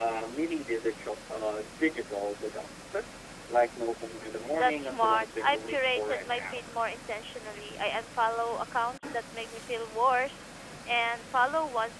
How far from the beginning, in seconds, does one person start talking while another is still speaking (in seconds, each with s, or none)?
4.5 s